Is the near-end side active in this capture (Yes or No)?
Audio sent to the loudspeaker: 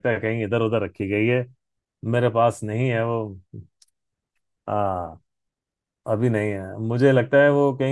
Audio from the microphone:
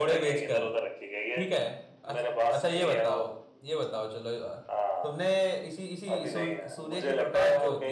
Yes